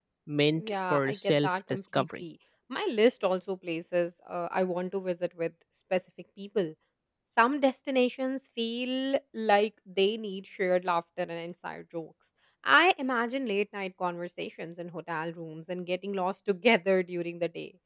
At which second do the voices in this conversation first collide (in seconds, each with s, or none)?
0.6 s